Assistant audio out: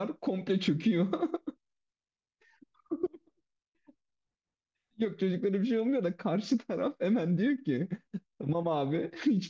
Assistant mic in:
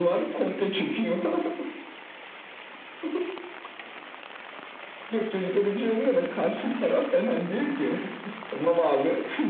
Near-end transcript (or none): none